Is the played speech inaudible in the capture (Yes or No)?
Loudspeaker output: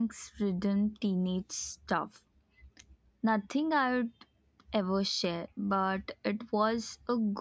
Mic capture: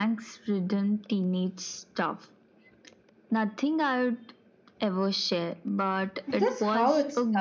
No